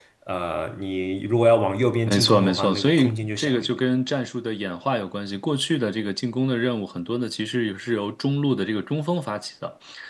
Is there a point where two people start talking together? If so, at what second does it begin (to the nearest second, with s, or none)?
2 s